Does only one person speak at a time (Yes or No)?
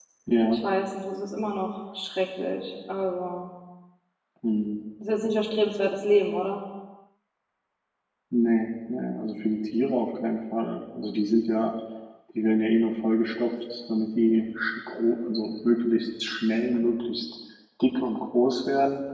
Yes